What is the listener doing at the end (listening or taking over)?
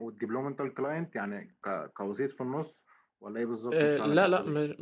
taking over